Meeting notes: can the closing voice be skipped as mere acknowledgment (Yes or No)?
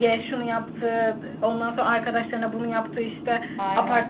Yes